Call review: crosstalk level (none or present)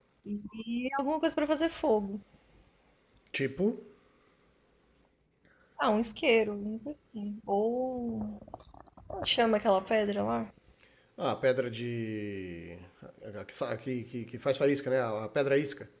none